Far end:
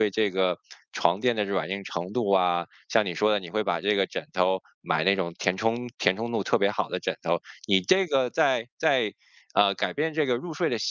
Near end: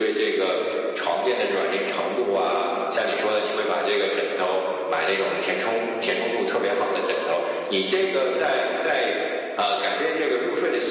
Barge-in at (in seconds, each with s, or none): none